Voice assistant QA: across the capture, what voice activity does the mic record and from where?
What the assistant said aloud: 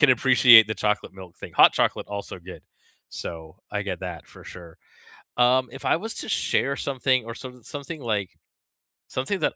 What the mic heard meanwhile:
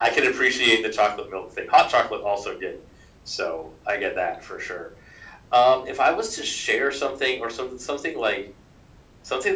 echo only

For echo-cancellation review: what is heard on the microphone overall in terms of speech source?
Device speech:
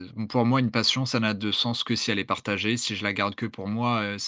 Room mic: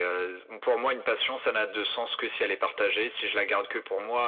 echo only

